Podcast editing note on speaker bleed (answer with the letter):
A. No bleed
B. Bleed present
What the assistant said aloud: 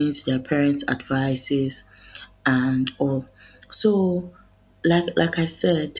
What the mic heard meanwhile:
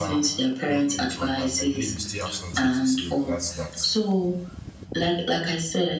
B